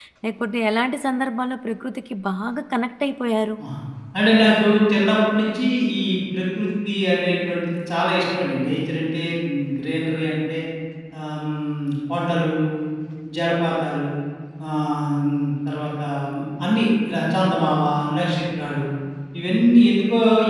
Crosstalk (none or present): none